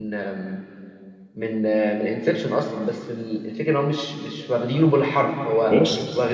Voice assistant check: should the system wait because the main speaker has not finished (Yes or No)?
Yes